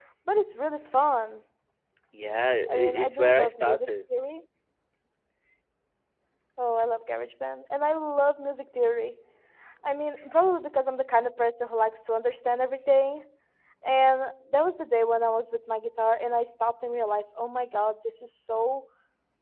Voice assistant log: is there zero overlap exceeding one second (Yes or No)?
No